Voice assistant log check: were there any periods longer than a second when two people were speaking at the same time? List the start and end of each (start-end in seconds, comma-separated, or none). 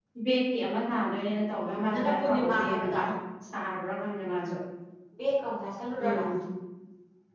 1.5-3.0